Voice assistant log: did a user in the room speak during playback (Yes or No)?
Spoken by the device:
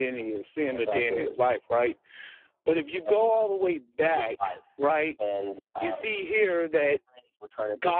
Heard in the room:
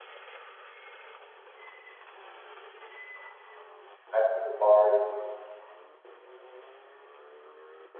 Yes